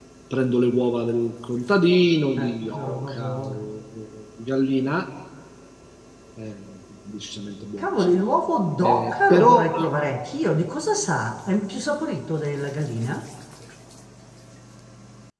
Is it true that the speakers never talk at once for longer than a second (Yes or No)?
No